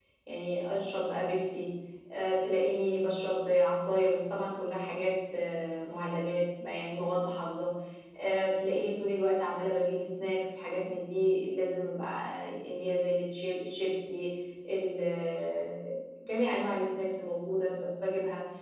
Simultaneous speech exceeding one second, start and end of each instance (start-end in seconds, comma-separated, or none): none